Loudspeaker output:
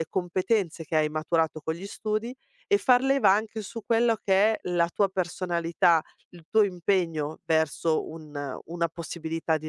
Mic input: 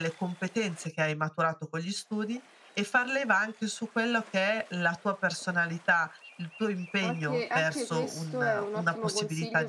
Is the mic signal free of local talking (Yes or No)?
No